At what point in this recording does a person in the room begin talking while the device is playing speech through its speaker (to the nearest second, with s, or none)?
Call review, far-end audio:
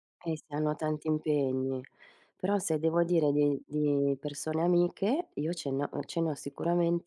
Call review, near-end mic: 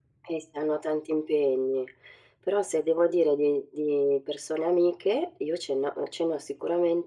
none